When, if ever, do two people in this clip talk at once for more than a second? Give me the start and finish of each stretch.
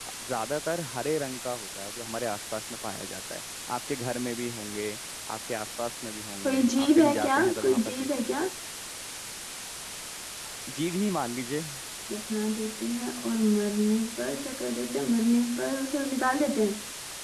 6.4-8.4

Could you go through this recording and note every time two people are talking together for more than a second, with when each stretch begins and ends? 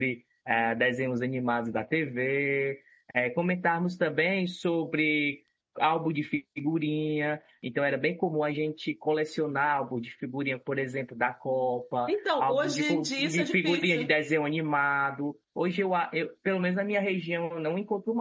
12.1-14.1

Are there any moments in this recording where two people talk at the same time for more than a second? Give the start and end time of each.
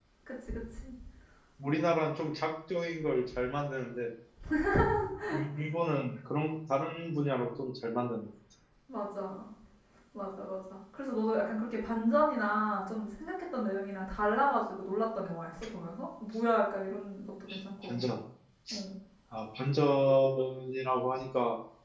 none

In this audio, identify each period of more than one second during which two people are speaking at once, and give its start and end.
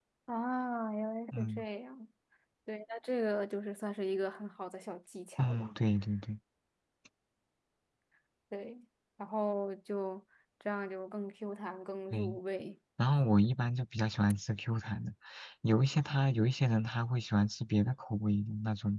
none

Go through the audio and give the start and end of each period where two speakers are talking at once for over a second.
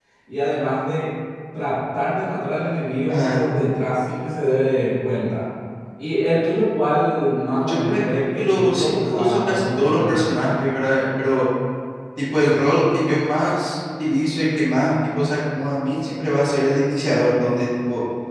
7.7-10.3

